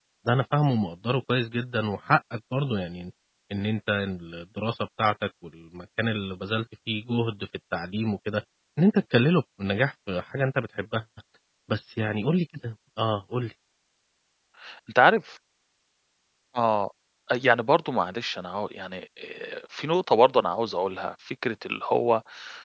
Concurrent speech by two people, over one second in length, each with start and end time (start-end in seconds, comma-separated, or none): none